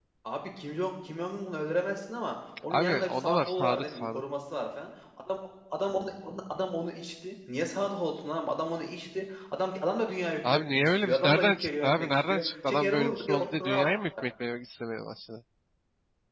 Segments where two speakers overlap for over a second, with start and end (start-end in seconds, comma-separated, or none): 2.7-4.2, 10.5-13.9